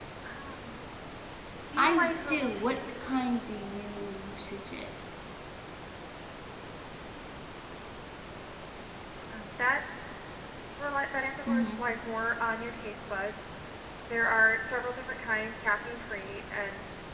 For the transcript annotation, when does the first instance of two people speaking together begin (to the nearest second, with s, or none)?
2 s